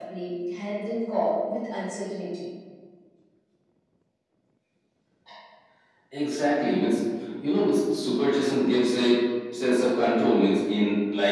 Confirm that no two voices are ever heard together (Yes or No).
Yes